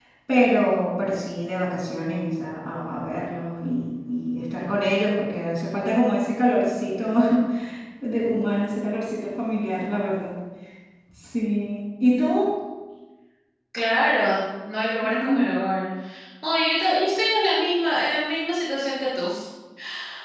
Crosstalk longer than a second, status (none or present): none